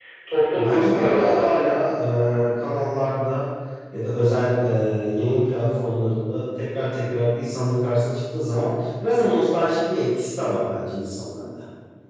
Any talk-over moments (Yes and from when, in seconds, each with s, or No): Yes, from 0.5 s